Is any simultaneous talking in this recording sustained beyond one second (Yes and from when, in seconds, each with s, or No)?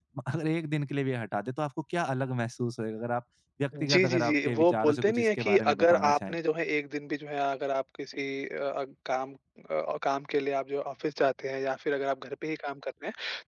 Yes, from 3.7 s